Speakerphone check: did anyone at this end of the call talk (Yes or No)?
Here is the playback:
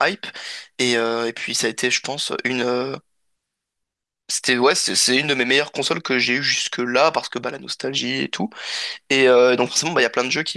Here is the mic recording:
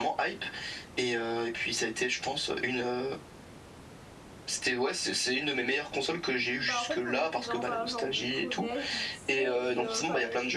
Yes